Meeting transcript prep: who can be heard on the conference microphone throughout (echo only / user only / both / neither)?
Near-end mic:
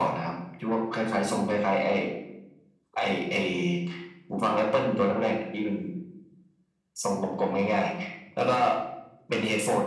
echo only